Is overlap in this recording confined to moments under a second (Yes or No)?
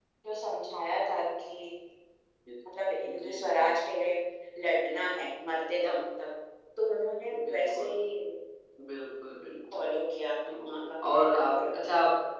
No